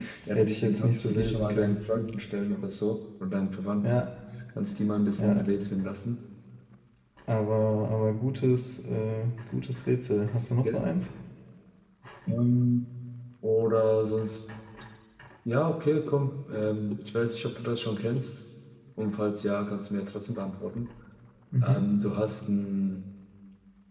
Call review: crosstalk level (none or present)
present